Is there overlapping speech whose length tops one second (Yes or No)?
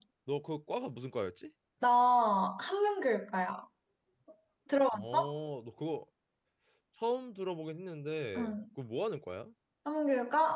No